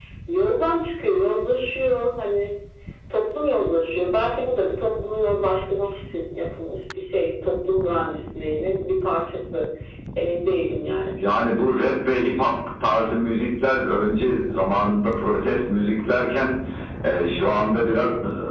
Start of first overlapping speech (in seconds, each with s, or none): none